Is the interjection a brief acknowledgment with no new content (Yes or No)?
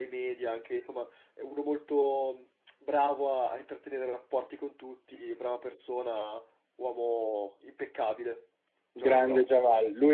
No